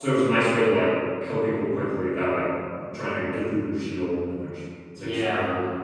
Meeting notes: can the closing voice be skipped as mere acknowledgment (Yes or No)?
No